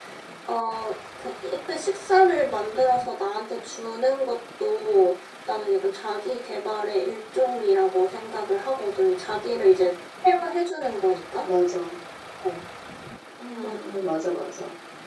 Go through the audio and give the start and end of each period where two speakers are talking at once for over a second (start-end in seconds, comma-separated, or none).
none